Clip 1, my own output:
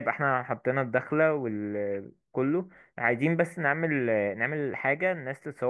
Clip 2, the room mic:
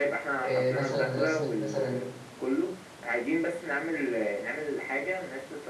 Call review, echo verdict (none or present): present